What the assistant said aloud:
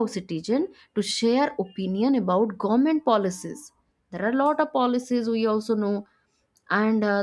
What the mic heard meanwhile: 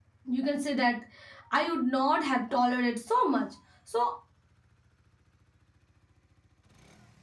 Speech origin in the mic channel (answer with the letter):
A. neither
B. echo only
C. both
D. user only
D